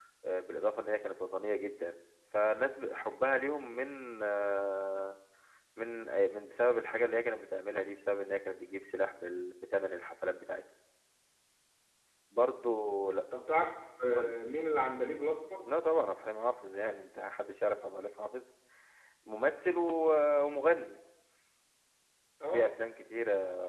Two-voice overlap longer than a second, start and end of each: none

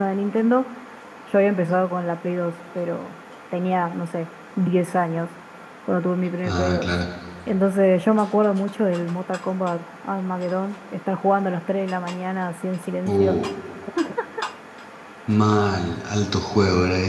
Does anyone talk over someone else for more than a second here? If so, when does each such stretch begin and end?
none

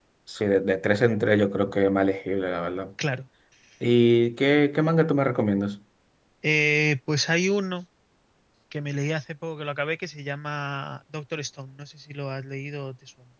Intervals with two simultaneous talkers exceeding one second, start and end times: none

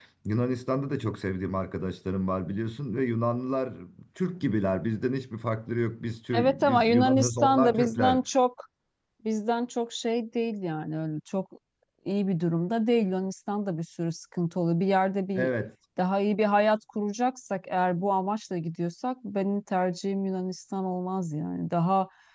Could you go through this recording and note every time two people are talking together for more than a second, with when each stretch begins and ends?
6.3-8.2

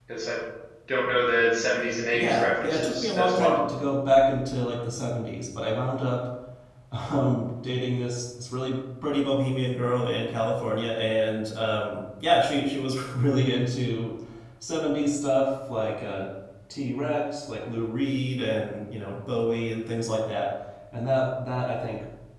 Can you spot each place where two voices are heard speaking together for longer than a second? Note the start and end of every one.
2.1-3.6

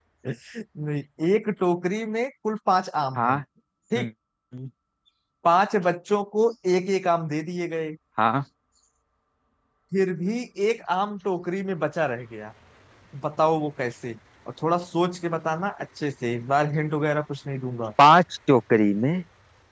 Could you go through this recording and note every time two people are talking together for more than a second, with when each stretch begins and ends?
none

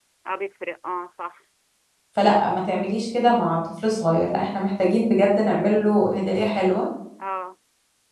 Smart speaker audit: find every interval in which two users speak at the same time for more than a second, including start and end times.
none

